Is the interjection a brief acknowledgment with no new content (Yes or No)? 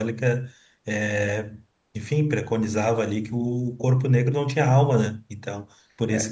No